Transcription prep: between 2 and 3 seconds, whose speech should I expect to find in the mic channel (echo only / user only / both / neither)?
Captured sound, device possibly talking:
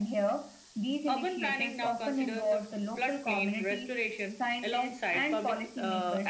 echo only